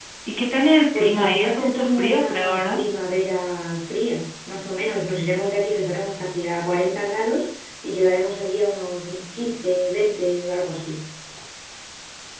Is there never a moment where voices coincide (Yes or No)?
No